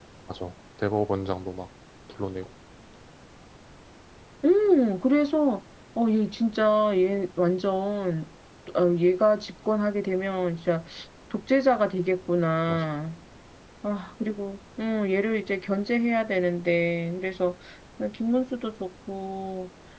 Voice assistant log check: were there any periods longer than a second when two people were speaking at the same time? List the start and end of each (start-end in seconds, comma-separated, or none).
none